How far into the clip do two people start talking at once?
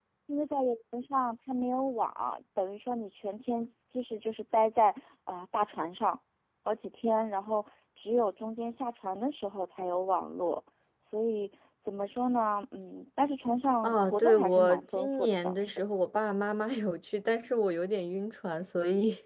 13.8 s

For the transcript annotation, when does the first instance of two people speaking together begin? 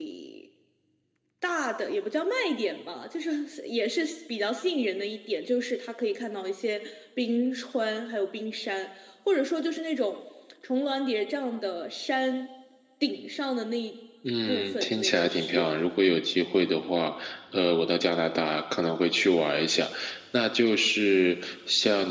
14.5 s

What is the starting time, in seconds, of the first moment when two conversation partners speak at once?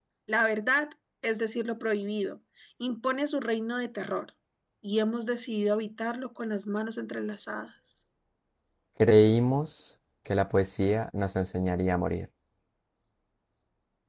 none

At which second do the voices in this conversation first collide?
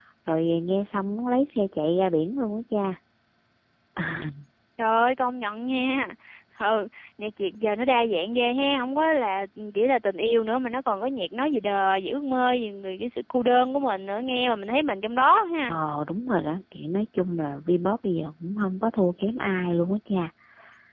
none

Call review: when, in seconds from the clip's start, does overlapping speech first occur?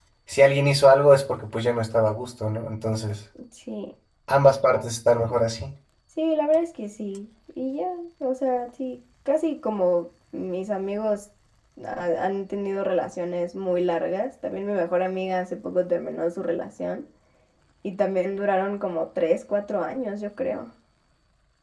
none

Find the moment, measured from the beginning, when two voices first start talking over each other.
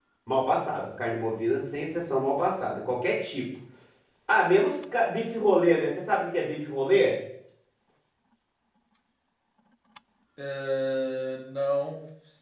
none

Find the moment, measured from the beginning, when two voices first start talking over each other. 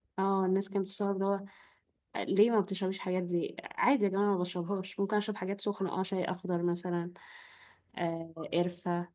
none

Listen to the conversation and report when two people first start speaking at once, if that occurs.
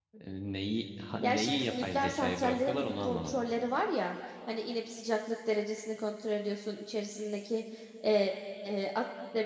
1.2 s

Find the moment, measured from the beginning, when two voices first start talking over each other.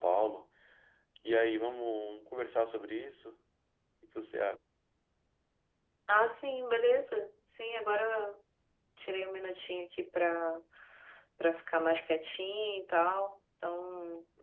none

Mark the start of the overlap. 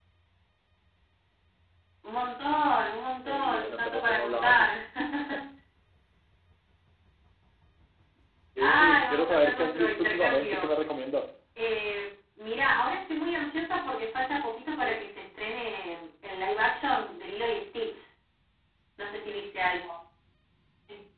3.2 s

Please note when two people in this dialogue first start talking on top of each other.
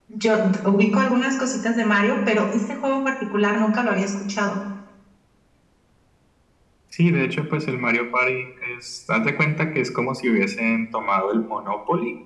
none

